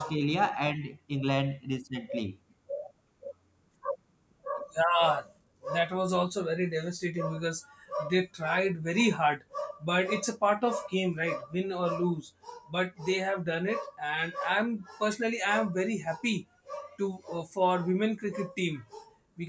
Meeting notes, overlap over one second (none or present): none